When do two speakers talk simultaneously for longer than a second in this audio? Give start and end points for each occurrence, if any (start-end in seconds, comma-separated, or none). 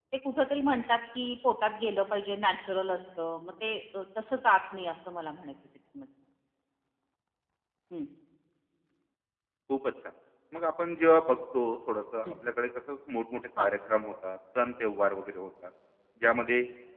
none